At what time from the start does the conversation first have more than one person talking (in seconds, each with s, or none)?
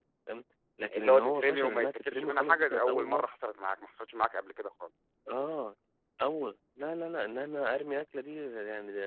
0.9 s